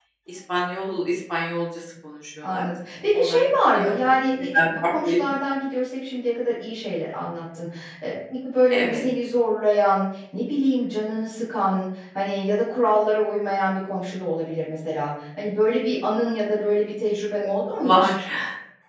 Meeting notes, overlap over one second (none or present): present